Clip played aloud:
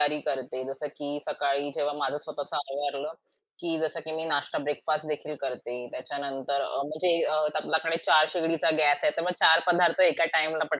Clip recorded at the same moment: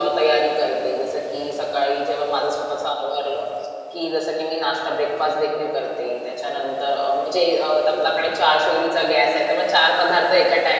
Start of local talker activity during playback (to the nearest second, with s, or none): none